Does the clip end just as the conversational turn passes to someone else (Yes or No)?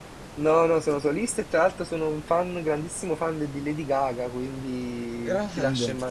No